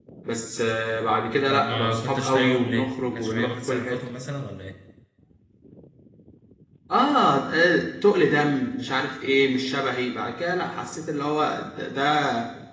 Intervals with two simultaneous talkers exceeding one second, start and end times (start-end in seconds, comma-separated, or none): 1.5-4.0